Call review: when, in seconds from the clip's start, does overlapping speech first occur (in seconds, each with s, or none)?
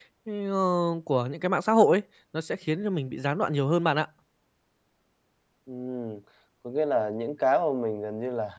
none